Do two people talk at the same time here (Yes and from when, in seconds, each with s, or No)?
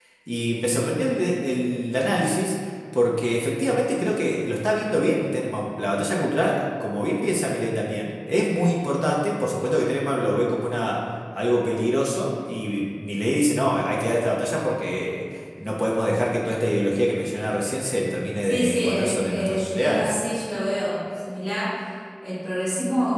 Yes, from 18.4 s